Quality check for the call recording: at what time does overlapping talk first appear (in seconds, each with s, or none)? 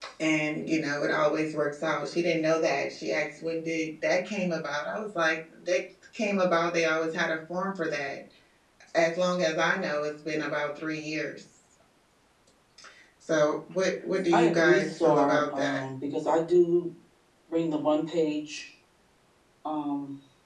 14.3 s